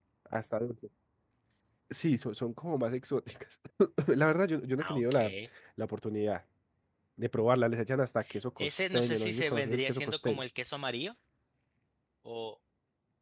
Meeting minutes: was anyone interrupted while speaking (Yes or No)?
Yes